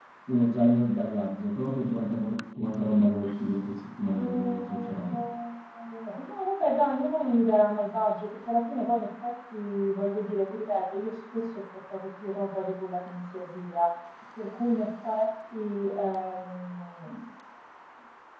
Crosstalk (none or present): present